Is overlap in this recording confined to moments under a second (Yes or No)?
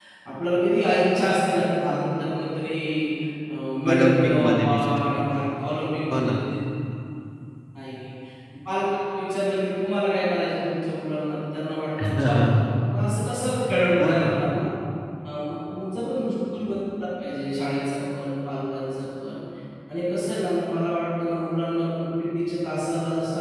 No